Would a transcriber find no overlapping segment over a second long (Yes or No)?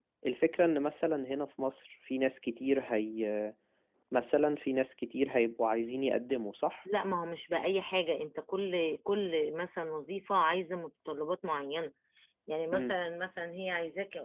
Yes